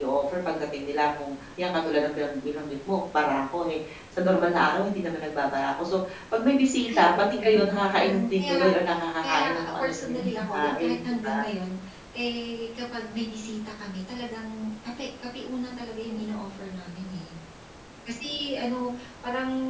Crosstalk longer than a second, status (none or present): present